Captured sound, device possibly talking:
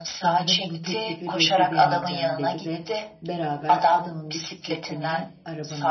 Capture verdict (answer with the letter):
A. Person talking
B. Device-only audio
A